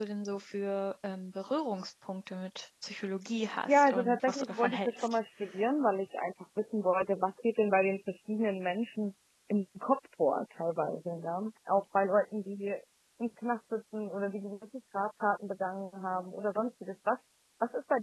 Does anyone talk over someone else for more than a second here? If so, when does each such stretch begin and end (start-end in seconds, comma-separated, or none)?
3.7-5.2